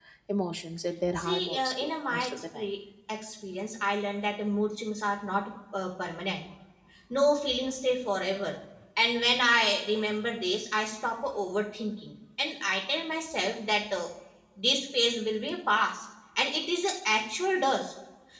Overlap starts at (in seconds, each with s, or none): 1.2 s